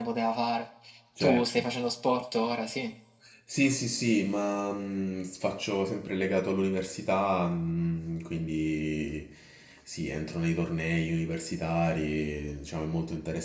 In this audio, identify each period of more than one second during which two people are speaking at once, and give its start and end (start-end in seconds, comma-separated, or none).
none